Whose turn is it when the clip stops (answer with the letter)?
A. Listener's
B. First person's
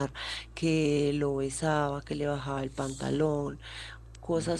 B